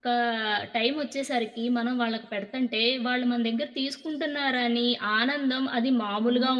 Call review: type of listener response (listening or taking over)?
taking over